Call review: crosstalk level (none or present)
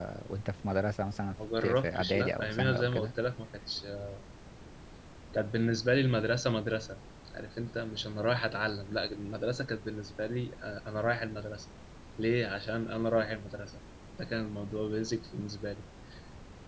present